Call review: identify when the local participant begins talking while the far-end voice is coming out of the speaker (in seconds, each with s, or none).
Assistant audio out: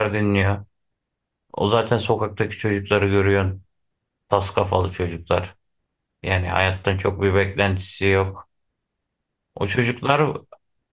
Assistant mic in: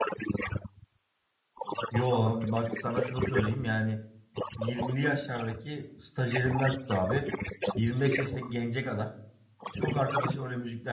1.9 s